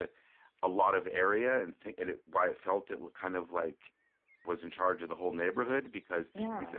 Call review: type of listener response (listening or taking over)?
listening